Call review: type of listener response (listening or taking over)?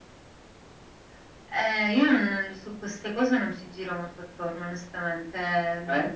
listening